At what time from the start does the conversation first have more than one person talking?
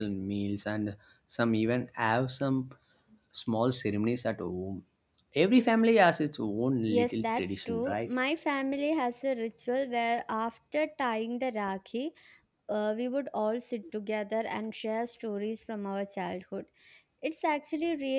6.9 s

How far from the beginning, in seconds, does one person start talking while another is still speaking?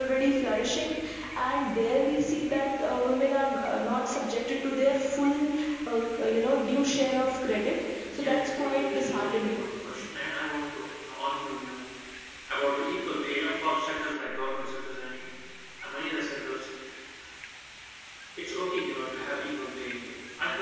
8.2 s

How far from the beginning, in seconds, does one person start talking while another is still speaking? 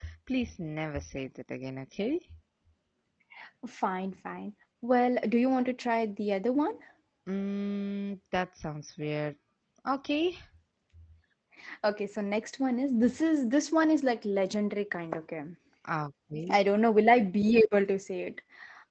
none

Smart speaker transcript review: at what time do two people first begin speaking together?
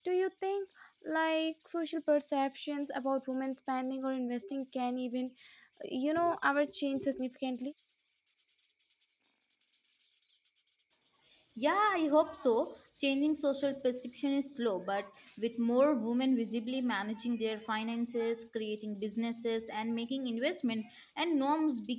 none

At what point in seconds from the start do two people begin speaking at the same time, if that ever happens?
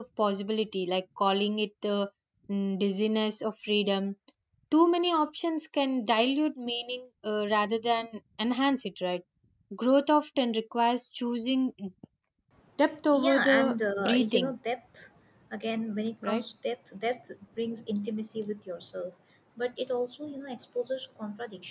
13.1 s

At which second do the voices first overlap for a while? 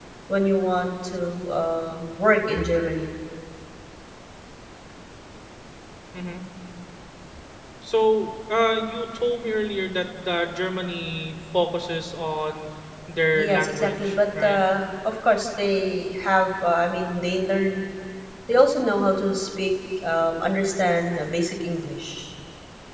13.3 s

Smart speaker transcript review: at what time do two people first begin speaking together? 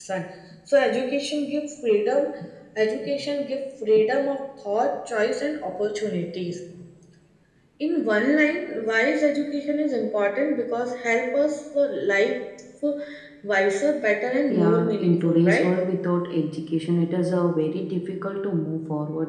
14.5 s

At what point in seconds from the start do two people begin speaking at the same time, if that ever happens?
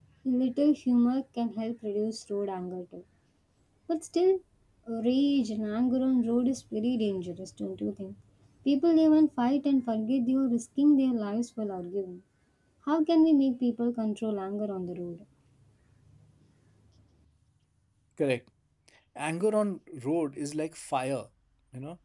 none

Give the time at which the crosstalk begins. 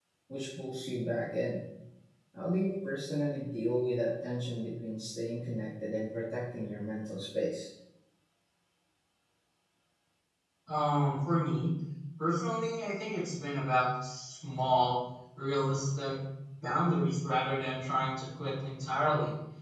none

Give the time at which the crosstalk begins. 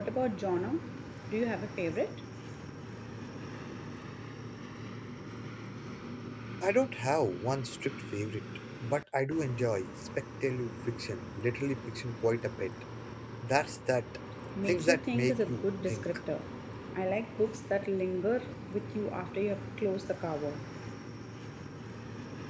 14.6 s

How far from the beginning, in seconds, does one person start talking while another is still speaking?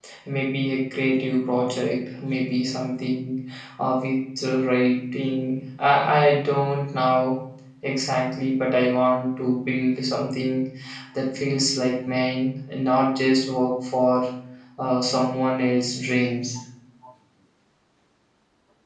none

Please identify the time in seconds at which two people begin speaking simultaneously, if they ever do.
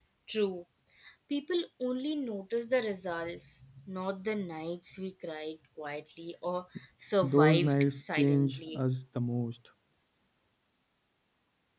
7.2 s

